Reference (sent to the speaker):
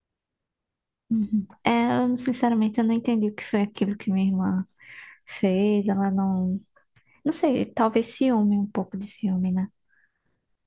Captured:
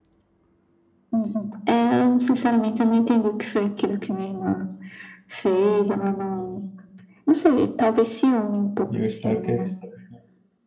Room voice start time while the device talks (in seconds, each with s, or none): 8.9 s